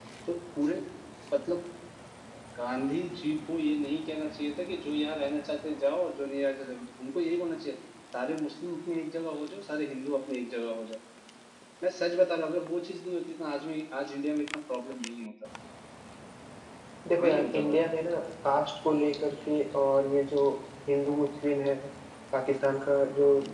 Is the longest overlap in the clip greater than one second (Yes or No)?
No